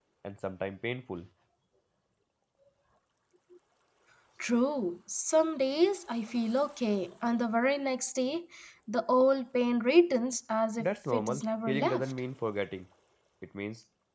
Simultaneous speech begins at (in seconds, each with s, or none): 10.8 s